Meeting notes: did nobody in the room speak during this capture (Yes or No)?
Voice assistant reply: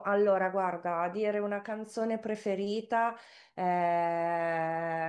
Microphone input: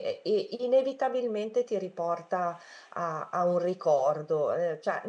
No